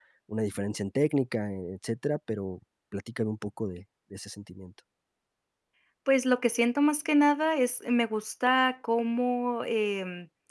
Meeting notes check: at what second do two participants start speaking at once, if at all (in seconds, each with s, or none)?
none